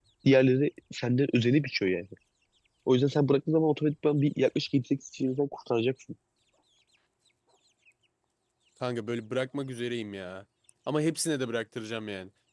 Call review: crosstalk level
none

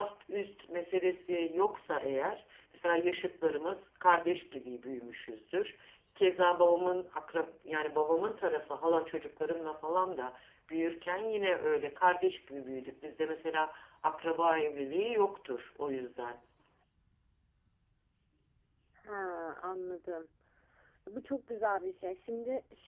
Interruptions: none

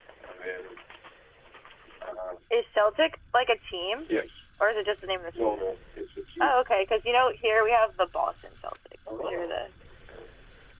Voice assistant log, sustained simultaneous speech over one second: none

